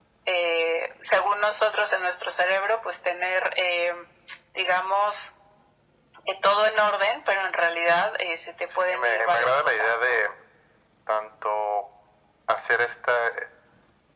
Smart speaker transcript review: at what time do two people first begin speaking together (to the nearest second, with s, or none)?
9 s